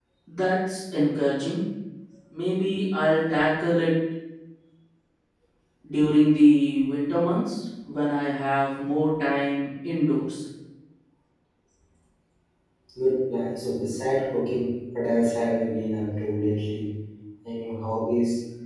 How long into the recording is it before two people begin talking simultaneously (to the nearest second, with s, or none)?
none